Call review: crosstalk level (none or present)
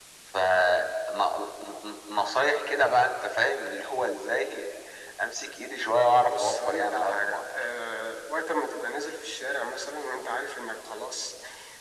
present